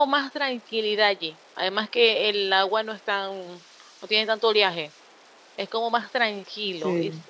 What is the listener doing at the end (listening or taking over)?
listening